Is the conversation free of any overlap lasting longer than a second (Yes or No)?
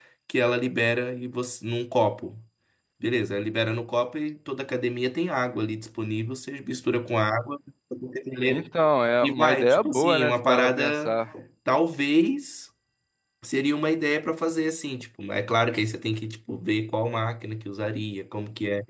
No